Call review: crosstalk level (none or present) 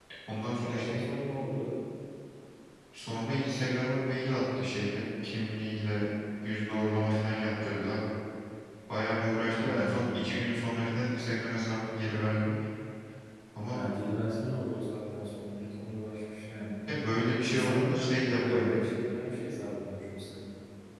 present